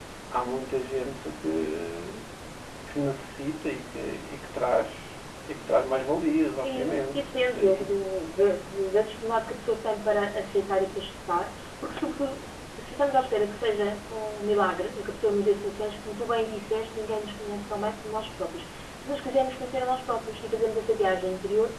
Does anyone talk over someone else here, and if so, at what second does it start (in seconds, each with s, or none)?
6.6 s